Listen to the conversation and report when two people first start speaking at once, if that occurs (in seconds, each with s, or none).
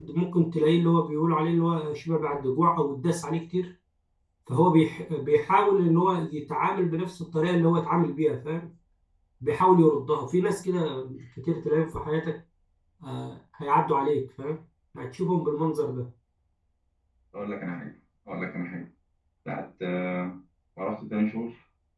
none